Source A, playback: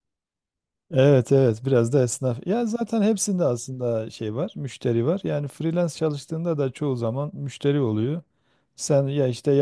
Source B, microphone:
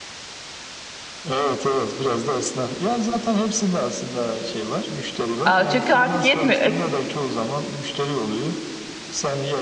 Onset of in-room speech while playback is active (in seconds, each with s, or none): 5.4 s